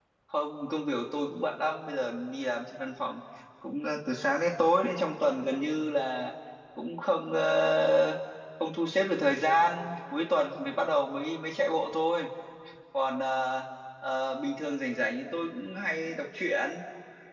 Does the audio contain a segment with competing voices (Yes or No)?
No